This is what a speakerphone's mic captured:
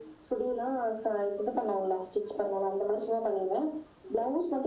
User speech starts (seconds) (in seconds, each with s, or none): none